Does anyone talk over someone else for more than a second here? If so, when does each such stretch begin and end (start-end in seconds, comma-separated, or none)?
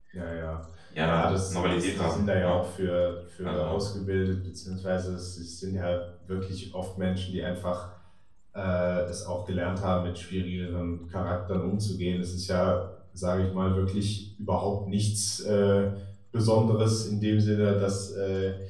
1.1-2.6